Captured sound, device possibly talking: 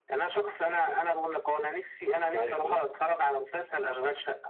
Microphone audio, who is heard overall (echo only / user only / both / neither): both